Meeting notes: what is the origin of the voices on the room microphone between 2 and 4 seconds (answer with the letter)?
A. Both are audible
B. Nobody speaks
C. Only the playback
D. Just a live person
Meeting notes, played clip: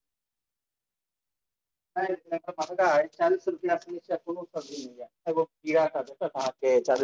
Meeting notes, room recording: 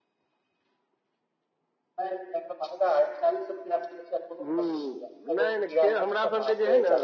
C